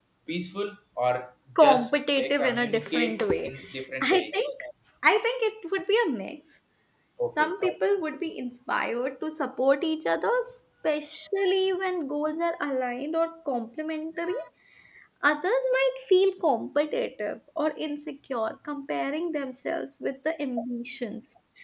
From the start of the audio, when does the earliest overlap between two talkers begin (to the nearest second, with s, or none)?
2 s